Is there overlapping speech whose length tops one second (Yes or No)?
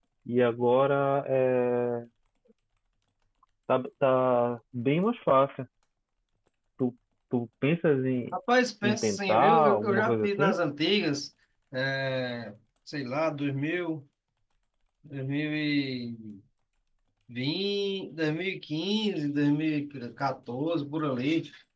Yes